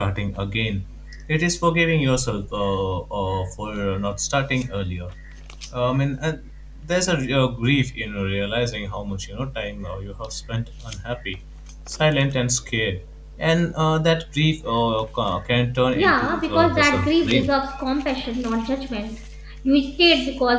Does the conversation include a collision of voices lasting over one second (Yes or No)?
Yes